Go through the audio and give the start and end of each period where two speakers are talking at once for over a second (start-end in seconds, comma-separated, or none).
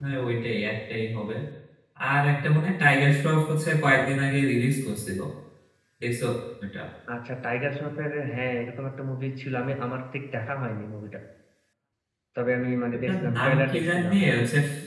12.9-14.2